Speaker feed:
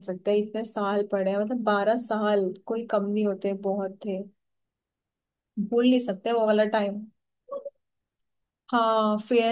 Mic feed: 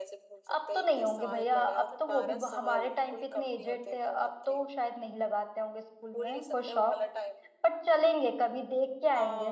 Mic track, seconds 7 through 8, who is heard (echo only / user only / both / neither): both